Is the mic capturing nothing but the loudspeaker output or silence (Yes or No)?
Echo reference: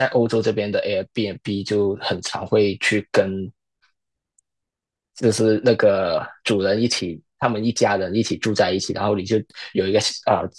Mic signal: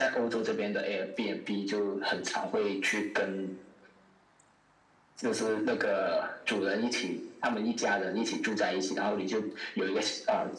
Yes